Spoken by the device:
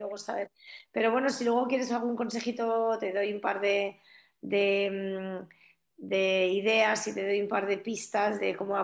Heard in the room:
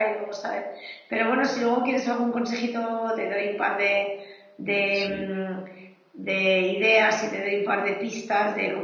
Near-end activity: present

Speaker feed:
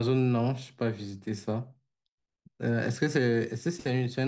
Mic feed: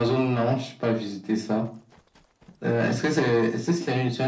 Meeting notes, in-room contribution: none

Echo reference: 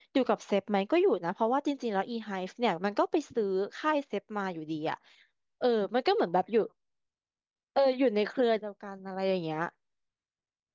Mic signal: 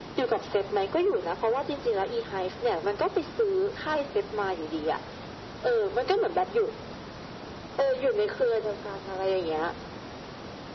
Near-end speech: none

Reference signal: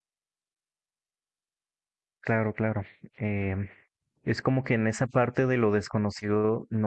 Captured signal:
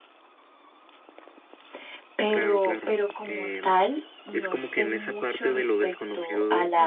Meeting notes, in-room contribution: present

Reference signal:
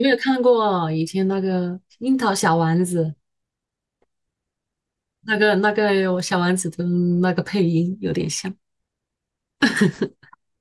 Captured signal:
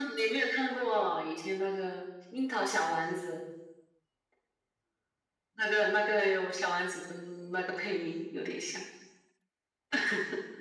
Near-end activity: none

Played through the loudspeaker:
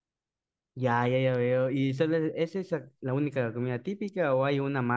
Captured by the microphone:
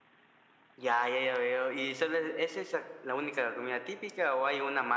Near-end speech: none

